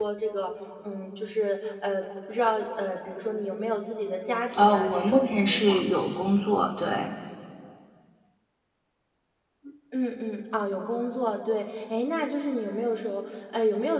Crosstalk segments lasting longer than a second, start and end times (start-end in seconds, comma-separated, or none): 4.6-5.8